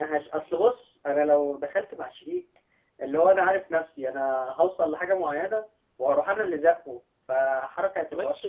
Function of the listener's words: taking over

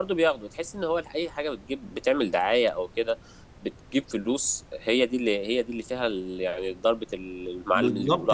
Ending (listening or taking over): taking over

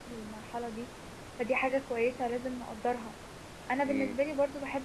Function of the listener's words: listening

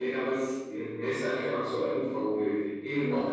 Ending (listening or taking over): listening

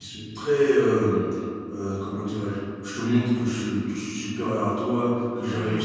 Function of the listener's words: listening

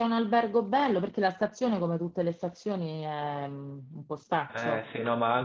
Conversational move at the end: taking over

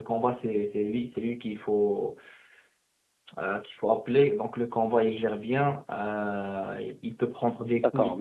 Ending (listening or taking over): taking over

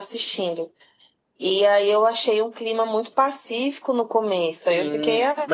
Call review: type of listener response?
taking over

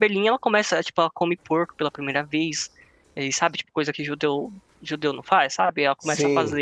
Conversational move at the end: listening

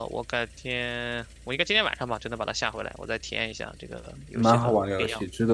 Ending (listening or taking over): taking over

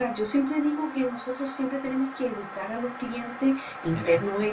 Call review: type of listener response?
listening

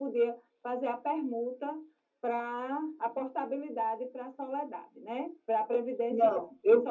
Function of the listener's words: taking over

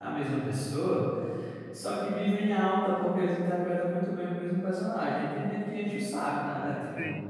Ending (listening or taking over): listening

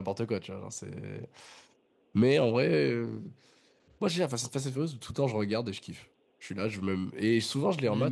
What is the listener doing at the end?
taking over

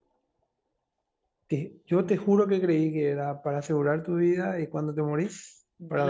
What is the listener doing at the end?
taking over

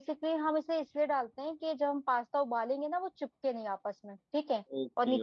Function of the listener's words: taking over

